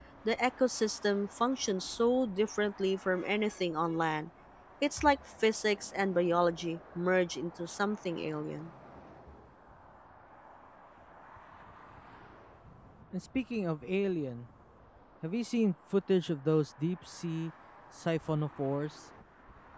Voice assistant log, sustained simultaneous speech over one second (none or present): none